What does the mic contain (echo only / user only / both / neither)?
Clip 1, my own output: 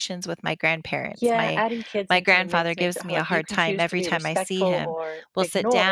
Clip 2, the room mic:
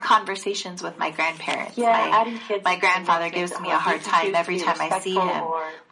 echo only